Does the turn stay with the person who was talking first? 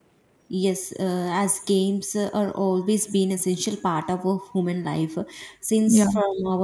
Yes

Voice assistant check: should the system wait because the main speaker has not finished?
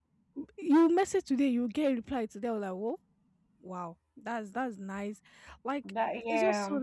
Yes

